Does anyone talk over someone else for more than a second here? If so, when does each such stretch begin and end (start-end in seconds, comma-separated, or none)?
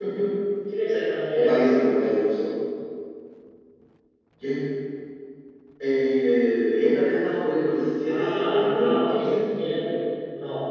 8.1-9.6